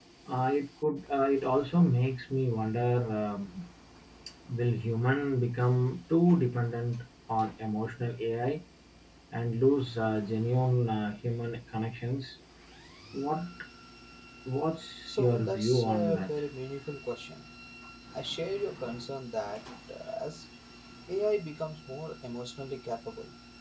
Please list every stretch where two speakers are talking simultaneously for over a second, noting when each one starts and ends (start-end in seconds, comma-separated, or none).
15.1-16.4